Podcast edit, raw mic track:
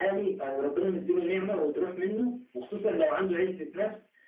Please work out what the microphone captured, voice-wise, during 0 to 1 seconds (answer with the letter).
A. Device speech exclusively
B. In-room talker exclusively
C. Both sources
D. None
A